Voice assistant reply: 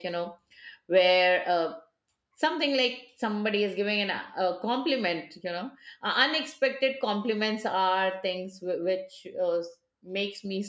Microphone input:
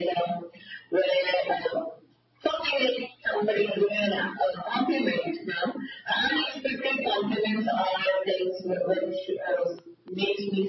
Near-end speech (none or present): none